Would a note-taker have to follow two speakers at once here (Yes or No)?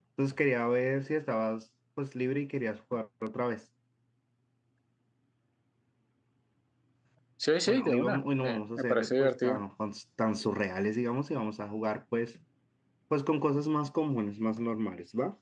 Yes